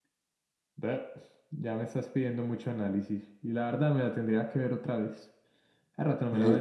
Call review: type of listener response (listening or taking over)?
taking over